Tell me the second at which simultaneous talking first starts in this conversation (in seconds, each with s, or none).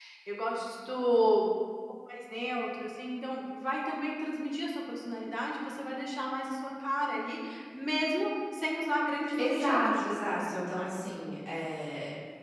9.3 s